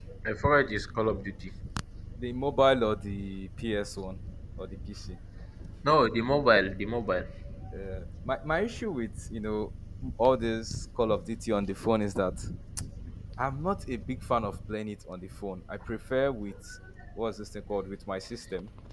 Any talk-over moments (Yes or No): No